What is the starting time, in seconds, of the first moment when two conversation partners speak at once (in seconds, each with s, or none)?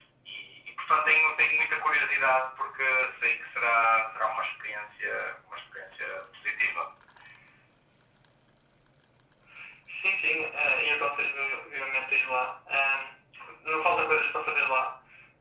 none